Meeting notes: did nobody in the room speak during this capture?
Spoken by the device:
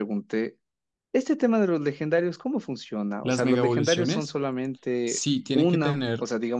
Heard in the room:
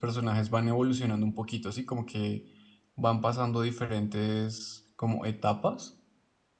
No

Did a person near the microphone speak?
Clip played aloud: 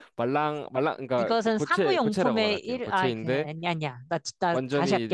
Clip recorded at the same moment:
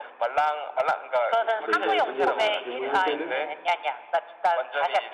Yes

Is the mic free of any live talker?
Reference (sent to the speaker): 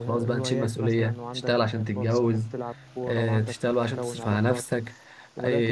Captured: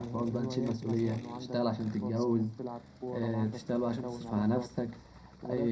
Yes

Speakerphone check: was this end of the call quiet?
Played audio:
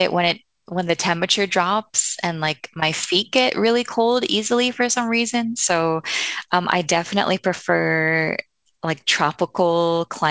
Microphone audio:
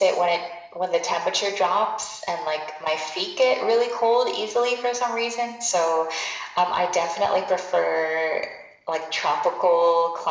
Yes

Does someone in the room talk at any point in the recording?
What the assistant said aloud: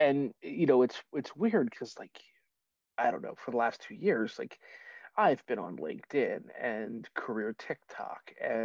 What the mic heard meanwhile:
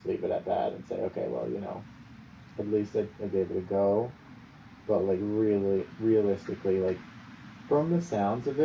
Yes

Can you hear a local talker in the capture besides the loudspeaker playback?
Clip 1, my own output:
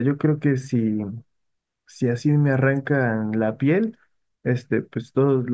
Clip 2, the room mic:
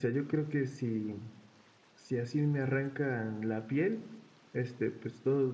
No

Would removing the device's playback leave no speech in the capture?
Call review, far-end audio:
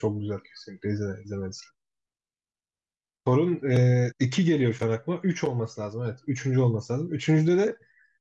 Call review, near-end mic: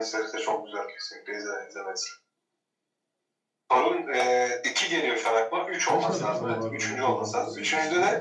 No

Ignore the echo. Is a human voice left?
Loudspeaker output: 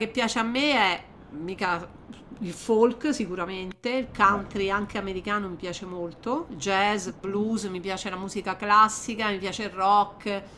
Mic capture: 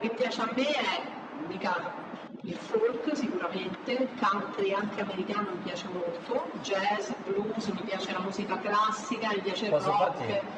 Yes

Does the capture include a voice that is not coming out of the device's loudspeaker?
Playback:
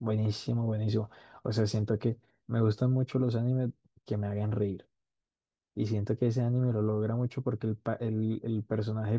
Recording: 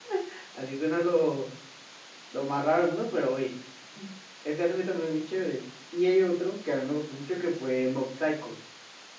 Yes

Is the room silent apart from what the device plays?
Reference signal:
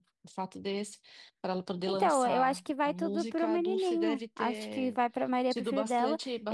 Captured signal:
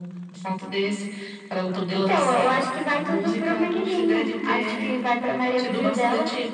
Yes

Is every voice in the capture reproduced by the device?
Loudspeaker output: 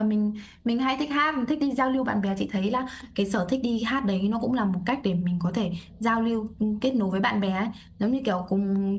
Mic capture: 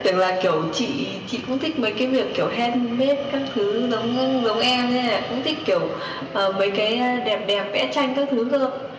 No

